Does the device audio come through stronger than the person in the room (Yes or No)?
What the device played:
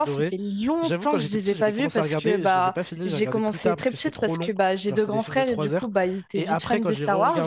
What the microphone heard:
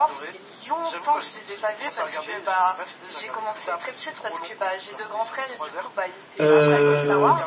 No